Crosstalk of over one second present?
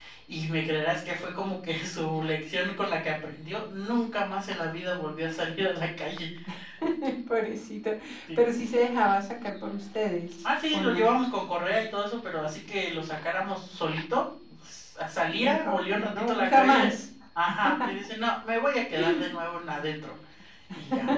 Yes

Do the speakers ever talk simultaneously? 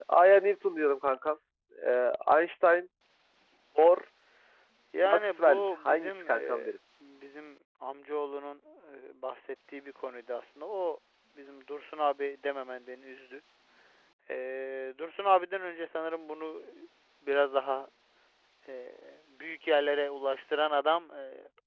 Yes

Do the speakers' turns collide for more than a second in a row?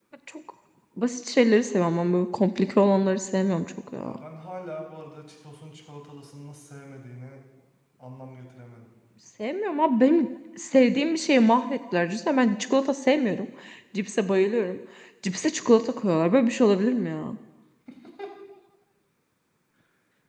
No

